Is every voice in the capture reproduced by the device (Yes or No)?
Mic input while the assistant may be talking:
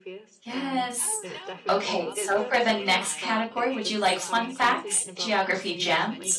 No